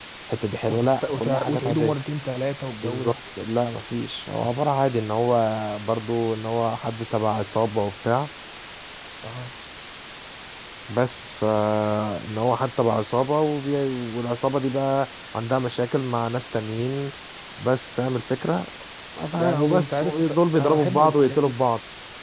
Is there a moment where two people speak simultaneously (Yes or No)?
Yes